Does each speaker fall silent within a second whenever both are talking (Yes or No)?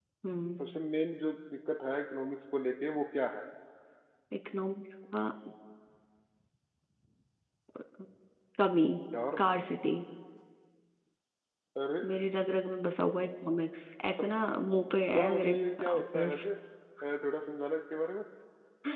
No